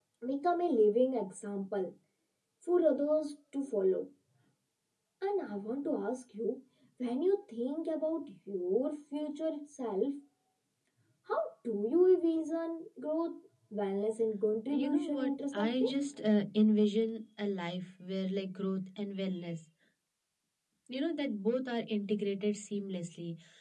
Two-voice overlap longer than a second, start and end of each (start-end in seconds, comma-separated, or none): 14.7-15.9